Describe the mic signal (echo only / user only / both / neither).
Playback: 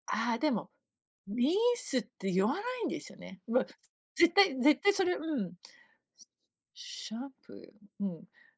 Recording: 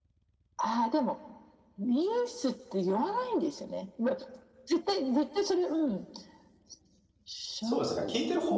both